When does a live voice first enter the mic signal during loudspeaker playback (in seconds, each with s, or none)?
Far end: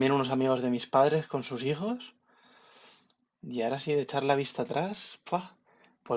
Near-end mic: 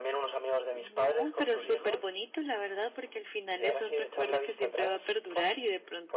0.7 s